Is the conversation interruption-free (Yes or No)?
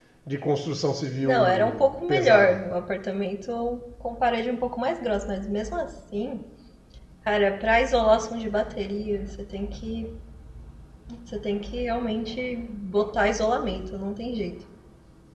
No